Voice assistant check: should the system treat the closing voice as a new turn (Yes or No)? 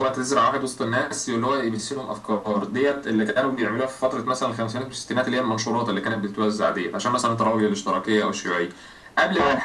No